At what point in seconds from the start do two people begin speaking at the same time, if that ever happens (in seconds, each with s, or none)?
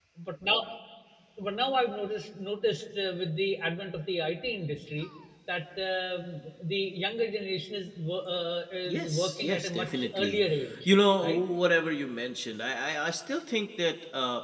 8.9 s